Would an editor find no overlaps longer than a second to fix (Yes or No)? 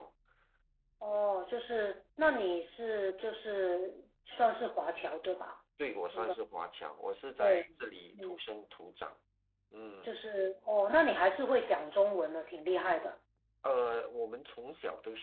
Yes